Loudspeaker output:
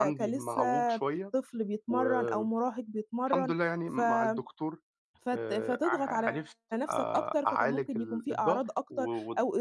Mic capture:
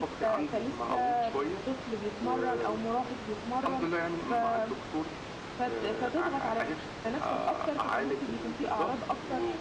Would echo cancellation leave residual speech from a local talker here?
No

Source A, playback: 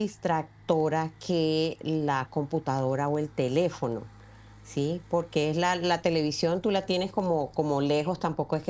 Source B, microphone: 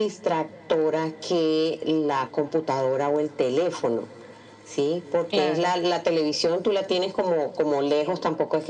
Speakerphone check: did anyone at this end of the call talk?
Yes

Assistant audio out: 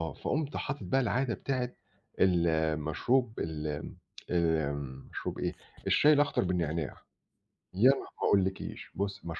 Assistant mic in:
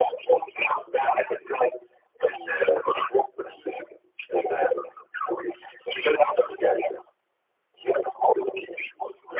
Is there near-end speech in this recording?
No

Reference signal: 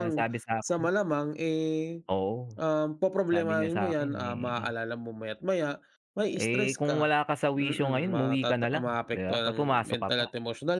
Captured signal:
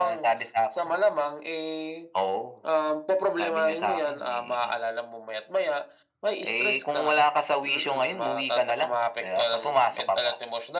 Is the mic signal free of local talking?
Yes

